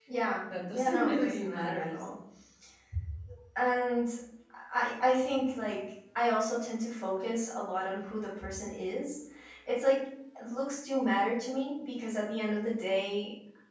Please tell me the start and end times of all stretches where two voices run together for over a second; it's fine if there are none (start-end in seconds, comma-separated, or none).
0.7-2.0